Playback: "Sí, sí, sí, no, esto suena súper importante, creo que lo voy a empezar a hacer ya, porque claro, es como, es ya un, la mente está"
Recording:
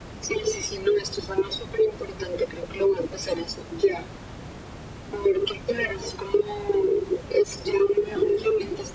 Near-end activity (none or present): none